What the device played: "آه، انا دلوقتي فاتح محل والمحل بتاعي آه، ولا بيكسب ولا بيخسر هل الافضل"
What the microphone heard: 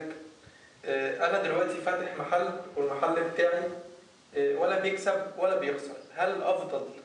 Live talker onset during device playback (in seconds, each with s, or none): none